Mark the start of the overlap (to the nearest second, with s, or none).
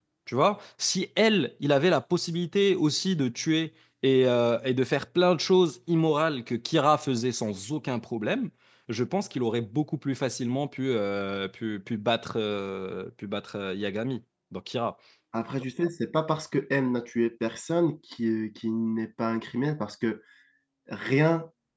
none